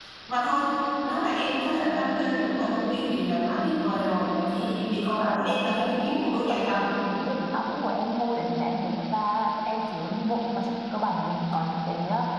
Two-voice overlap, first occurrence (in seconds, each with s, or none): 5.3 s